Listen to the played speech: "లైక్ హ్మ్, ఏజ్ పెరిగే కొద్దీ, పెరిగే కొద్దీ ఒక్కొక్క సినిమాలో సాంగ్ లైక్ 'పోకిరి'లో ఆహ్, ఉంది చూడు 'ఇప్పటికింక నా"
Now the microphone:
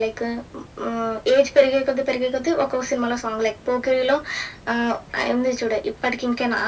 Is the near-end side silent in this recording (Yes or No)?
Yes